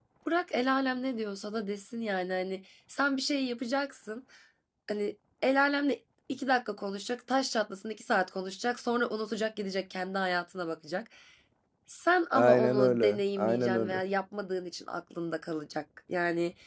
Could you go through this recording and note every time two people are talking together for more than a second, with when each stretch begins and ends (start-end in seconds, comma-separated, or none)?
12.4-14.0